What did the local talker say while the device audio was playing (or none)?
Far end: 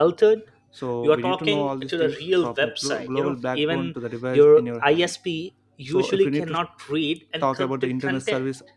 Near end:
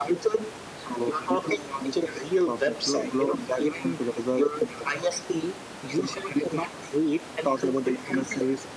none